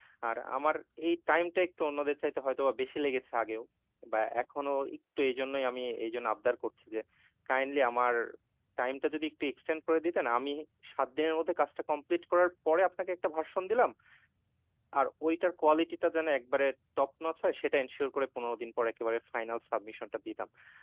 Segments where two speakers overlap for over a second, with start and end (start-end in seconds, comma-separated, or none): none